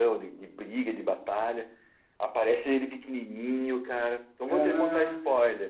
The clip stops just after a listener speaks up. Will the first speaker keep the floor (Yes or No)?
No